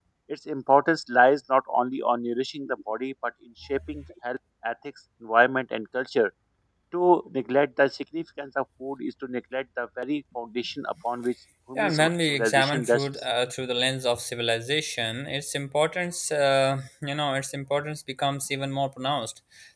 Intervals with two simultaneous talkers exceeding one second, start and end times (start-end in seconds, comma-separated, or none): 11.8-13.1